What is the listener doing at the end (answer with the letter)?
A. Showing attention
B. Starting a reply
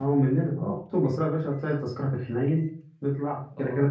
A